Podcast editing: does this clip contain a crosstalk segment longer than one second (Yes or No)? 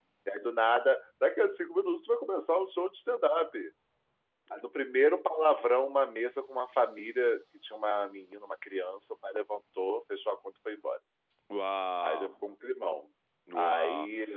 No